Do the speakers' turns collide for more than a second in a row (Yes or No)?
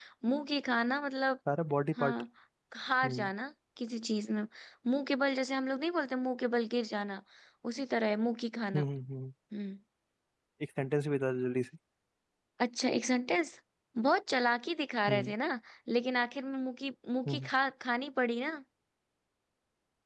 No